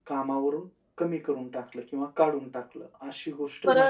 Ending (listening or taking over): taking over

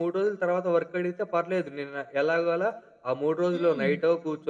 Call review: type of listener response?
listening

